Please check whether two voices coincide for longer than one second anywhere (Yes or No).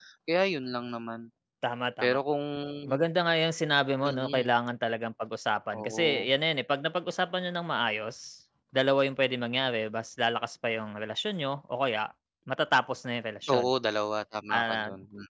No